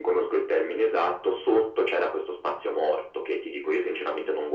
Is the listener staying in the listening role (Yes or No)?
Yes